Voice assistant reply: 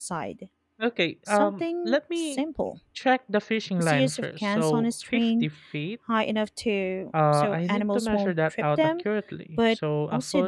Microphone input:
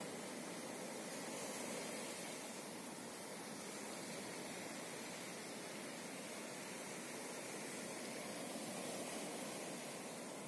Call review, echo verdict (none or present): none